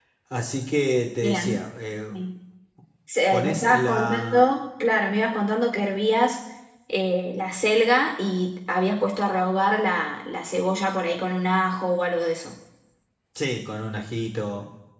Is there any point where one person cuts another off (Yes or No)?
Yes